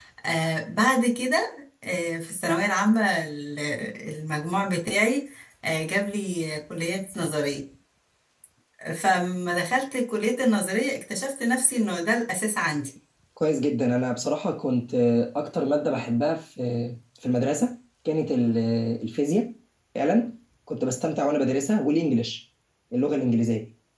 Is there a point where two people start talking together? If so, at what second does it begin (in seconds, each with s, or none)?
none